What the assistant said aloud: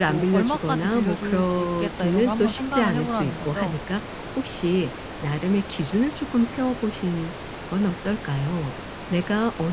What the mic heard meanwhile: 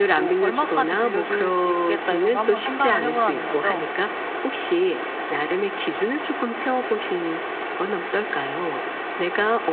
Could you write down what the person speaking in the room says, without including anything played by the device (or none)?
none